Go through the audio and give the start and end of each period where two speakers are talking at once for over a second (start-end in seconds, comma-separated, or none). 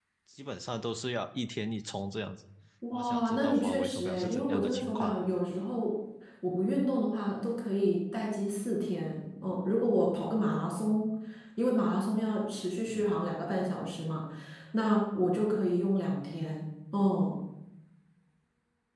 2.9-5.2